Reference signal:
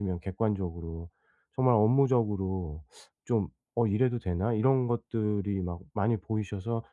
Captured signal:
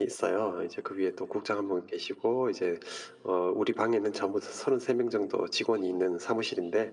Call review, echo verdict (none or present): none